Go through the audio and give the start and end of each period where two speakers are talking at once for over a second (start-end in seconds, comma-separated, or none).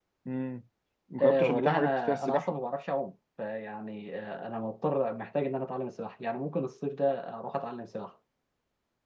1.2-2.6